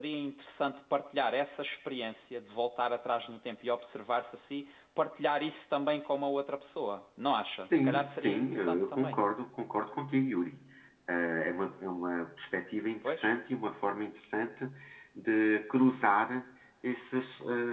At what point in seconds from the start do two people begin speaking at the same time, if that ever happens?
7.7 s

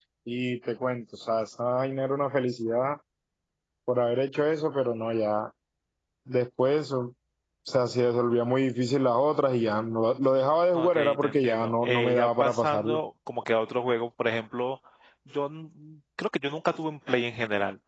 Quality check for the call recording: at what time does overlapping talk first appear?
10.7 s

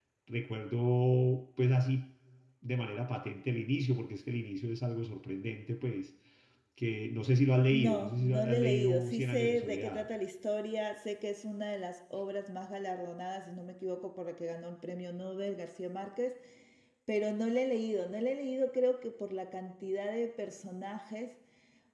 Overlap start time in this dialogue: 7.7 s

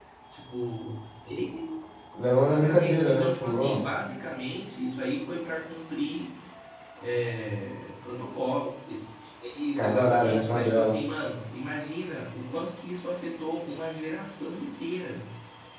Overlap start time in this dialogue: 2.4 s

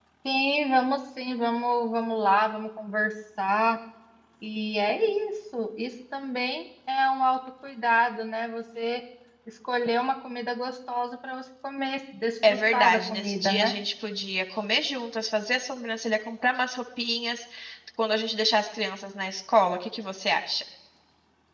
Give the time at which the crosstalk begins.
12.4 s

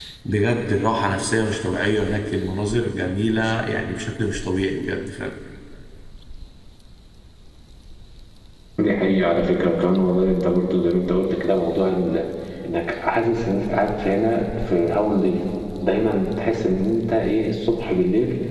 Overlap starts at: none

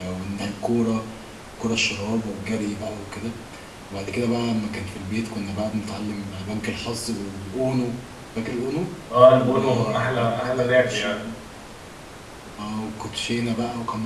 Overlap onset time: 9.4 s

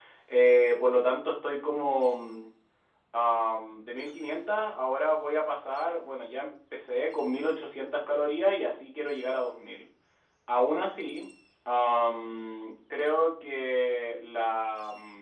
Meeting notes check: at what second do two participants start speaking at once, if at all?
none

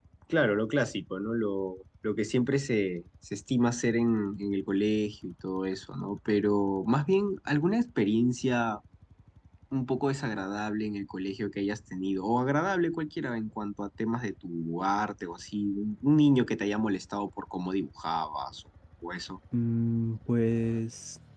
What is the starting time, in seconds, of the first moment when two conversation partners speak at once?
none

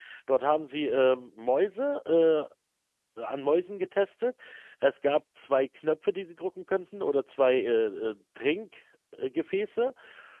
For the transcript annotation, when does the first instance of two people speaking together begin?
none

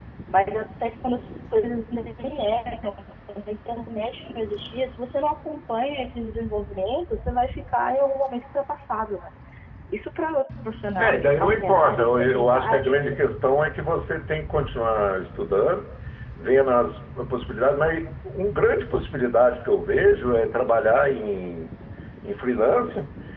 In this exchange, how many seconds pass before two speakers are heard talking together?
11.0 s

